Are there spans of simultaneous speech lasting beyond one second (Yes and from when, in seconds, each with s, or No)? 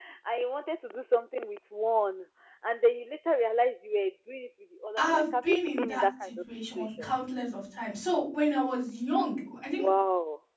Yes, from 5.0 s